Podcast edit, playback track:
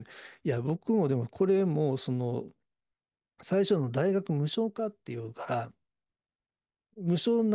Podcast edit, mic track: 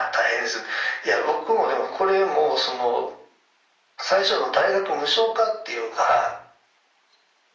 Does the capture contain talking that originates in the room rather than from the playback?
No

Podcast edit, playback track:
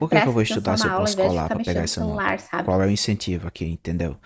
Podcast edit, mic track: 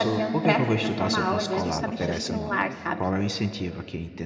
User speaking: Yes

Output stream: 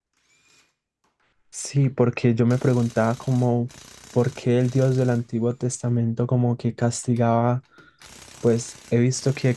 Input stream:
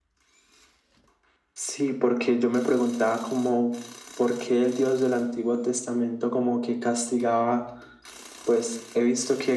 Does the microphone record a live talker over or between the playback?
No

